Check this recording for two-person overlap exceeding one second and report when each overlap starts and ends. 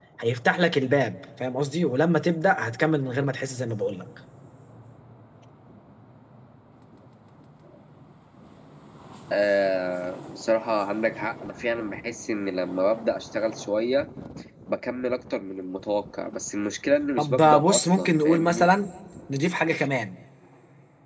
17.2-18.7

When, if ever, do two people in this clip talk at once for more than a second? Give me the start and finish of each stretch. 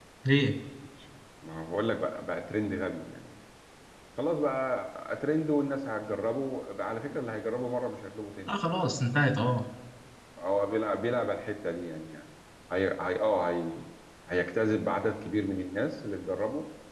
none

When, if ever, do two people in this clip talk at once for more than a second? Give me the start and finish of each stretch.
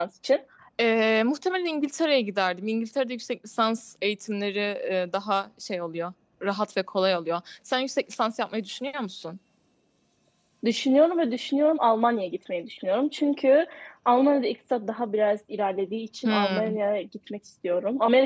none

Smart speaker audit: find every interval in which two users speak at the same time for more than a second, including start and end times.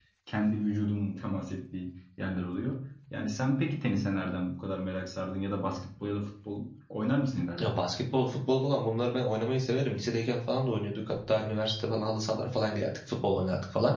none

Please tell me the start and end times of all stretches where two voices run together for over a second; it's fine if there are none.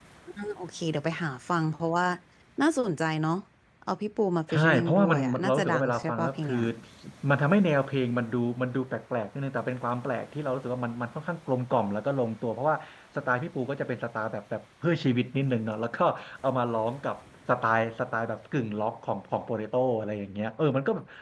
4.5-6.6

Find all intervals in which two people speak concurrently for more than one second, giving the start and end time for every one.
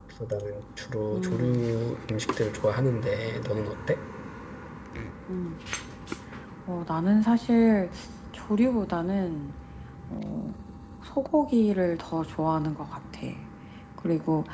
none

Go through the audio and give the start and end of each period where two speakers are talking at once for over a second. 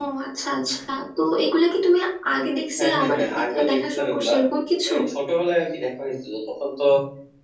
2.8-4.3

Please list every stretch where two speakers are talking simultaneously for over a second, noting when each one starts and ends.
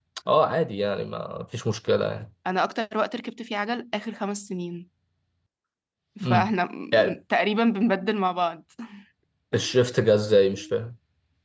none

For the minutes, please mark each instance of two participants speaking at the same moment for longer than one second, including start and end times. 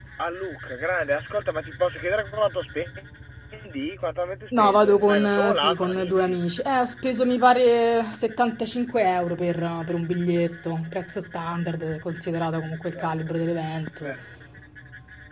4.6-6.4

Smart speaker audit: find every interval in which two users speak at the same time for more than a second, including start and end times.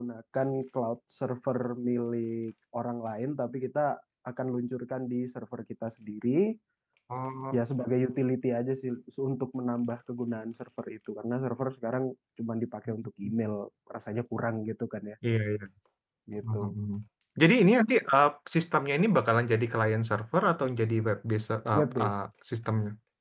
none

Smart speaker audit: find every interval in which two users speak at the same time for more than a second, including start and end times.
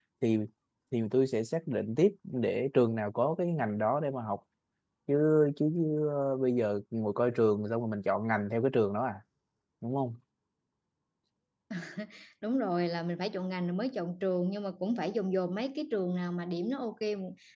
none

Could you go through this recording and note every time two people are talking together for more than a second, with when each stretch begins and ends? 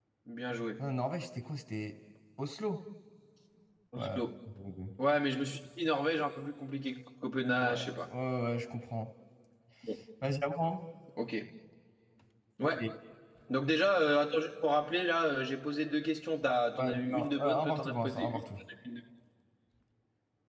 16.8-18.4

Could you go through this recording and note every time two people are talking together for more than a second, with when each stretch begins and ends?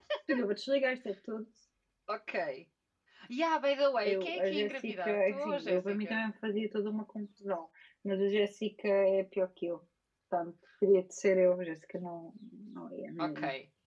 4.0-6.2

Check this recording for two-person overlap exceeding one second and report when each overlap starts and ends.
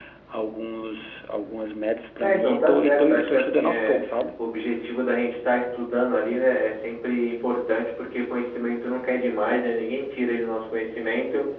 2.2-4.0

